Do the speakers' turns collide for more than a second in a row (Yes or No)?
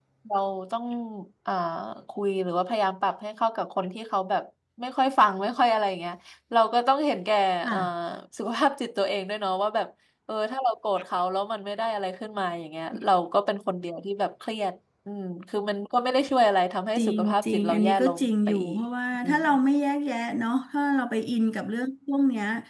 Yes